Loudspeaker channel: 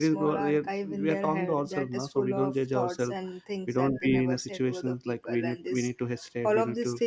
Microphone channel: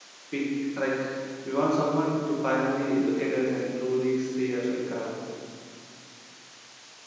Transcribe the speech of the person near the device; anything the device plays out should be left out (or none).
we like we want someone to finally look at us and truly see us like uh,